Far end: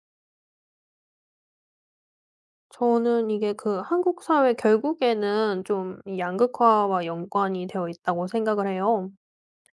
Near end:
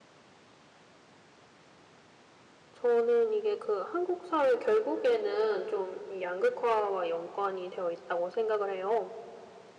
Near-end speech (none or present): none